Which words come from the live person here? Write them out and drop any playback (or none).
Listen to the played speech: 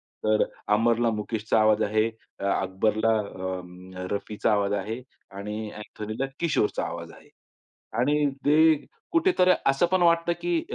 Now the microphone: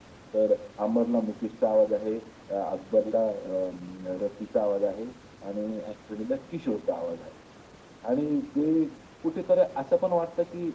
none